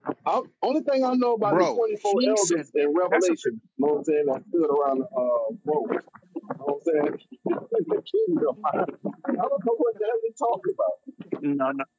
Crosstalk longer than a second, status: present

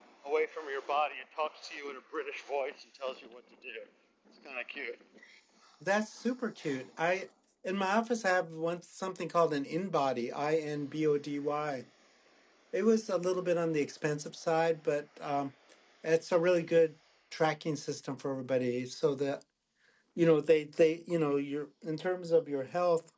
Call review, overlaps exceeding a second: none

